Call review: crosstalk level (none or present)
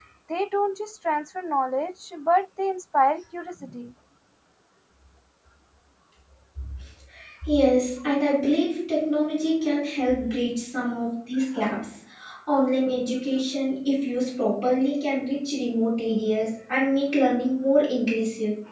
none